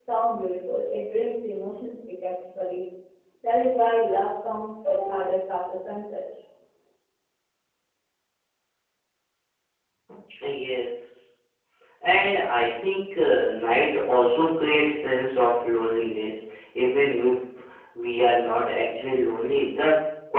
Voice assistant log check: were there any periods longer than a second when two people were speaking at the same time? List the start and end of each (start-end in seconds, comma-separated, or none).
none